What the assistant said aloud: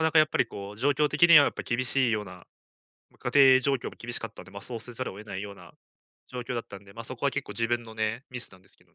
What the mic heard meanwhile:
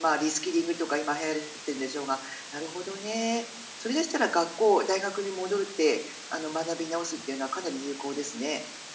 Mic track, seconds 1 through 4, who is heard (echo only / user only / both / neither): user only